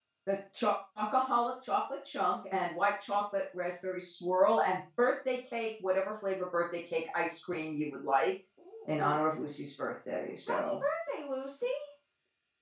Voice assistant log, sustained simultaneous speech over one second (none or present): none